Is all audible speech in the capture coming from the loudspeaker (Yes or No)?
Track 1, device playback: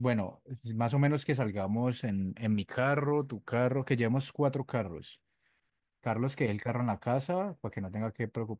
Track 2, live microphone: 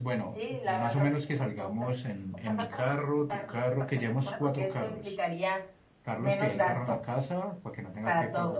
No